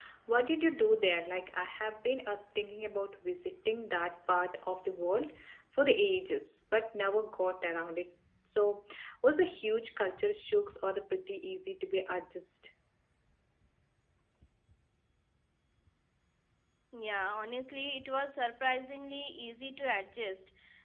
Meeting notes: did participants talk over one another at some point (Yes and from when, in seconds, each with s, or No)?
No